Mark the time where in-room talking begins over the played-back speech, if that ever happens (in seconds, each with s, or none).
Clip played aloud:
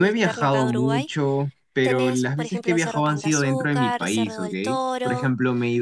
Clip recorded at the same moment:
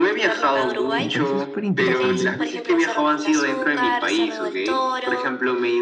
1.0 s